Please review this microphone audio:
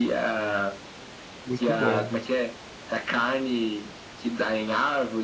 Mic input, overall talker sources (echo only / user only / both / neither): both